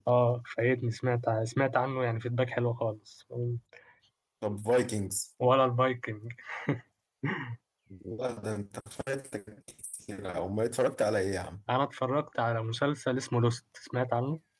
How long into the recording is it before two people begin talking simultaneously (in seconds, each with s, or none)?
none